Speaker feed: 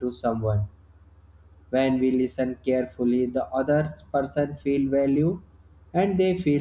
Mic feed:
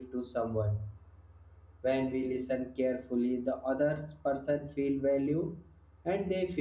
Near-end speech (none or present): none